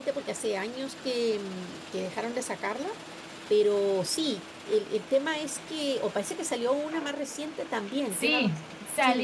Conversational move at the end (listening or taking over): taking over